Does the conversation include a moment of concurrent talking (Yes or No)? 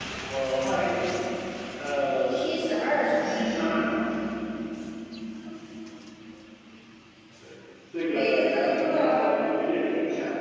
Yes